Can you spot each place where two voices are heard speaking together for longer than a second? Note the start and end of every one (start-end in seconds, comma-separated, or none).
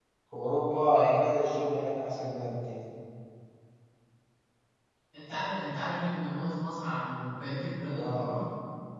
none